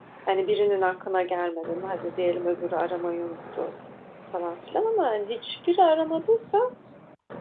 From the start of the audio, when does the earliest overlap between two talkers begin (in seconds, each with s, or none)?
none